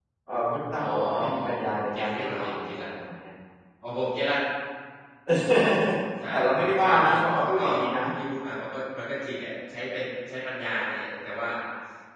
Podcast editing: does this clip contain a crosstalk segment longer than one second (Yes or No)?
Yes